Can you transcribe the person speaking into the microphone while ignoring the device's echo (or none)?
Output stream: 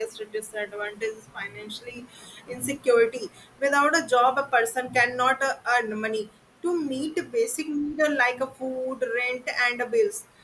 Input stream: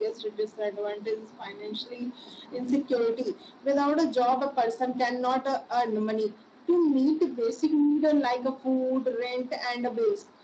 none